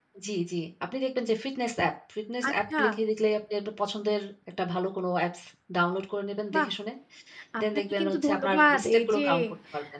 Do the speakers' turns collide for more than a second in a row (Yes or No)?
Yes